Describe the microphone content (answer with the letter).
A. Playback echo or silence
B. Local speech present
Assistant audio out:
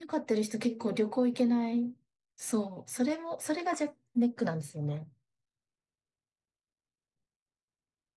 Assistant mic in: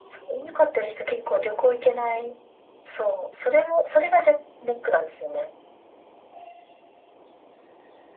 A